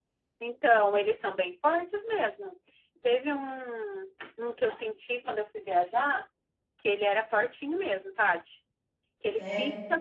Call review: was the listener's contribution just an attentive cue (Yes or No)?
Yes